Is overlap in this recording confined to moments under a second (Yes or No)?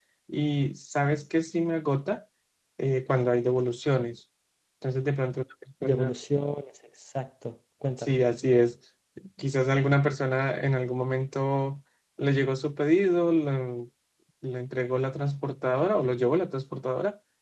Yes